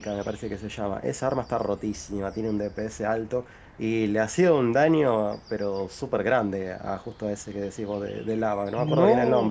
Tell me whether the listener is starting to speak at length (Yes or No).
Yes